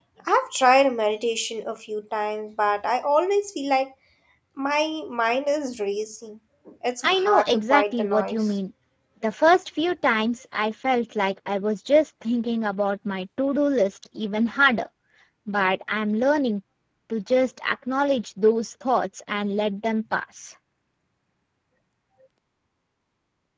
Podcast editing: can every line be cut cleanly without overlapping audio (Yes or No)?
No